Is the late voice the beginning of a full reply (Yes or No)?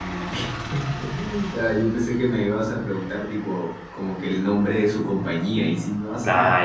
Yes